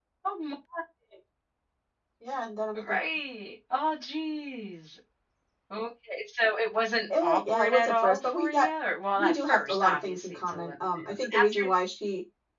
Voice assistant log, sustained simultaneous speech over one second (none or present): present